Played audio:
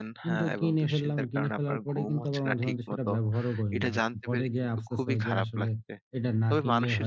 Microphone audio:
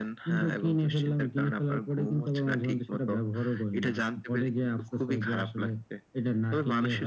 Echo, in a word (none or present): present